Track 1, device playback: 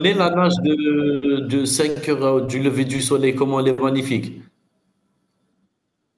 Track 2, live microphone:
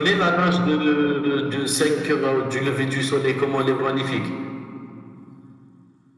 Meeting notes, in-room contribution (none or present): none